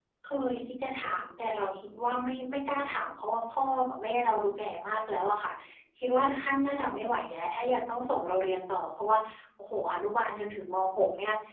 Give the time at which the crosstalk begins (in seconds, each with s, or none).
none